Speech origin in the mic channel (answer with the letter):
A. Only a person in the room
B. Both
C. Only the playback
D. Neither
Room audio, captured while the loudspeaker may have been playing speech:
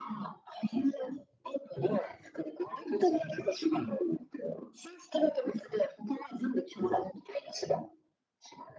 C